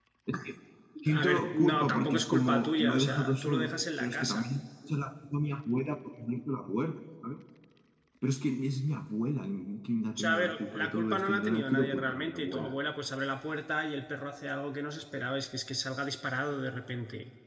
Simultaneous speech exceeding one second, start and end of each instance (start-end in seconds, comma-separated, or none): 1.1-4.5, 10.2-12.7